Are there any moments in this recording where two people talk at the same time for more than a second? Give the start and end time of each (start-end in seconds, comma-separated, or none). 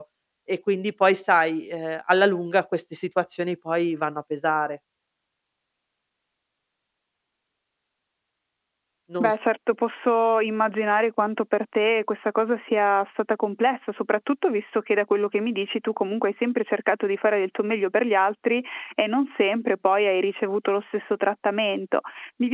none